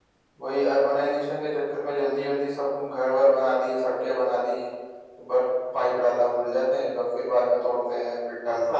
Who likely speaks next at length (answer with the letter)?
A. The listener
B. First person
A